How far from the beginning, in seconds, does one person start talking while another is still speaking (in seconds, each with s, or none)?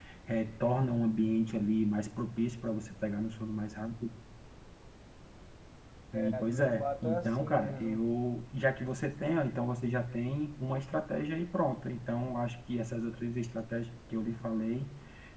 6.1 s